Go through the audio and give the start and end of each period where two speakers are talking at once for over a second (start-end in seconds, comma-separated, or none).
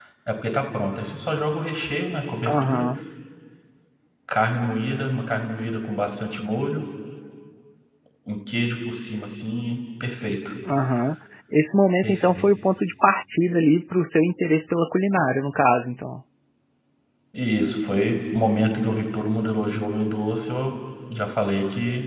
none